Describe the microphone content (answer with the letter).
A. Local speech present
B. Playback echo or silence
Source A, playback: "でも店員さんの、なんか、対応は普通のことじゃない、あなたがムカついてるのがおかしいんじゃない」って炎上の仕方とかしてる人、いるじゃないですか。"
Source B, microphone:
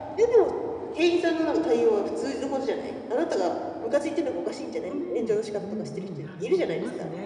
A